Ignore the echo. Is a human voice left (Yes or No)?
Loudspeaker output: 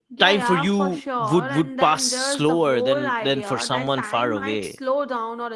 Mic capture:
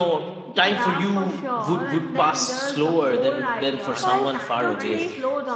Yes